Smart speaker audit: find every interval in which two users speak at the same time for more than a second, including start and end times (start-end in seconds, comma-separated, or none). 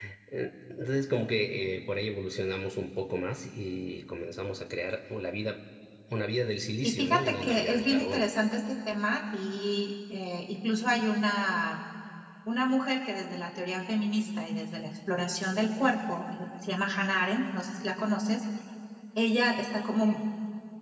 6.8-8.3